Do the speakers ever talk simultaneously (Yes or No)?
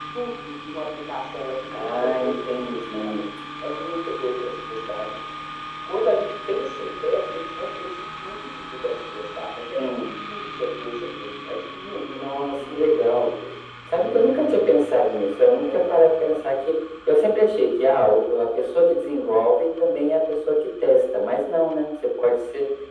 Yes